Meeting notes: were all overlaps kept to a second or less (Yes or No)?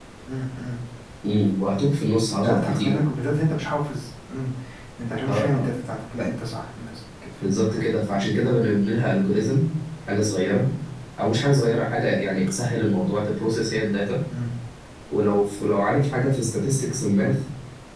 Yes